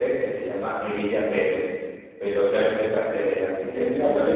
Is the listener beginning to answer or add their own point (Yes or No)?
Yes